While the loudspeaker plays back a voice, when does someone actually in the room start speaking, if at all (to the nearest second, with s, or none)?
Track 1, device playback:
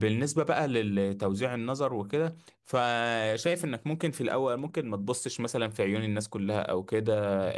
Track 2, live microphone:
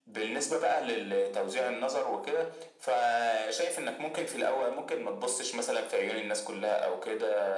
none